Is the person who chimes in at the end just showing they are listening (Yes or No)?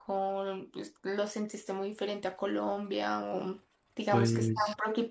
Yes